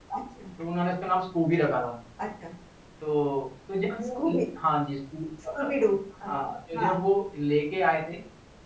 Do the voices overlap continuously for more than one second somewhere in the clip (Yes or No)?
No